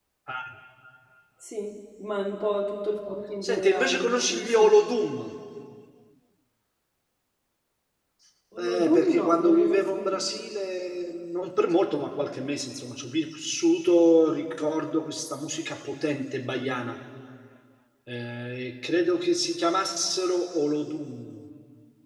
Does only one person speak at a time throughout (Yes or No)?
No